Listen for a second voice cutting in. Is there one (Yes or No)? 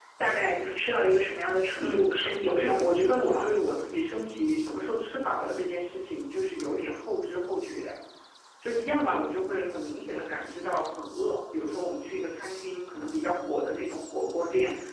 Yes